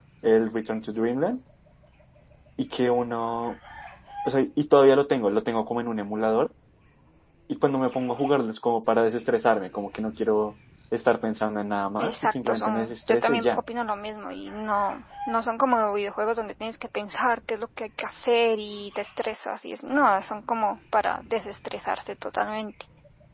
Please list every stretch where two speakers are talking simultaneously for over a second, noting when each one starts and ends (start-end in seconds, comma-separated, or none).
12.0-13.6